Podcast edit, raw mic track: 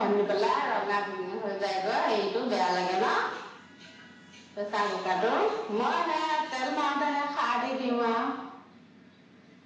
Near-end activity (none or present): none